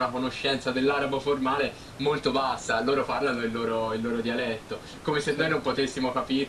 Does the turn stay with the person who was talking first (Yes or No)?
Yes